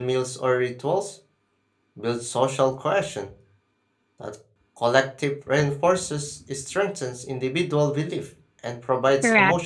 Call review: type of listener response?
taking over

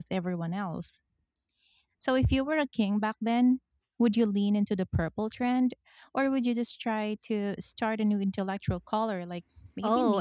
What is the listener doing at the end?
taking over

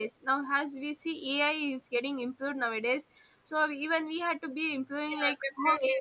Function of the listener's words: taking over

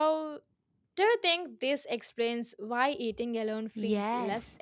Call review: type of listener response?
taking over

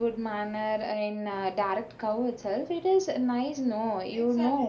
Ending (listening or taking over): taking over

